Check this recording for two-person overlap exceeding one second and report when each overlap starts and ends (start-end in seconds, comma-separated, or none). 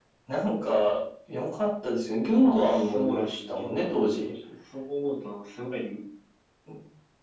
2.4-4.3